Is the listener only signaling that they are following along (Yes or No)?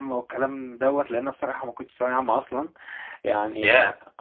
Yes